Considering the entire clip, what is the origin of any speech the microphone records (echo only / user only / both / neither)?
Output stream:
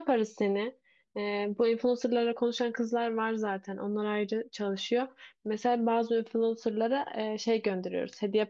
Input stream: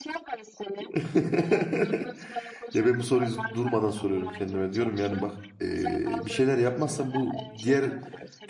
both